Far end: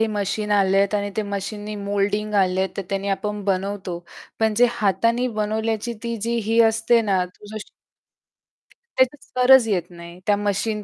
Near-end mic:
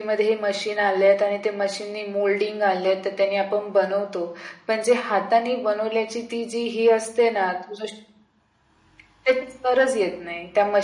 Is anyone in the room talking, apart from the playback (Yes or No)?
No